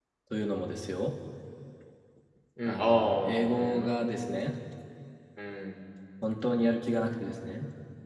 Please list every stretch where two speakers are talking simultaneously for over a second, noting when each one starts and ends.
2.6-3.9

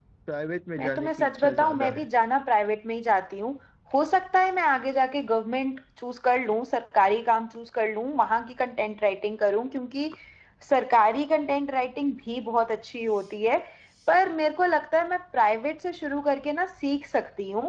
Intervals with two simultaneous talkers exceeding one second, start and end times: 0.8-2.0

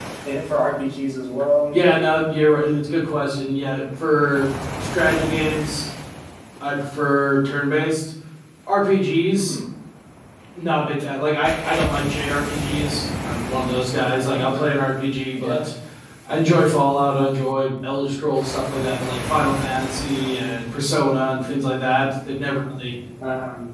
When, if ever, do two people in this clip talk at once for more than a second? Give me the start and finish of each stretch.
none

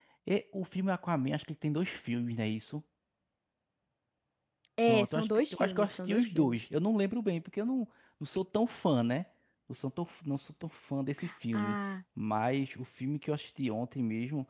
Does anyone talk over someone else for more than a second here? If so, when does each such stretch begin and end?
4.9-6.6

